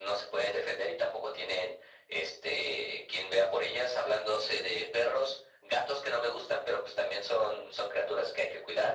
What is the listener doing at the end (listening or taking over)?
listening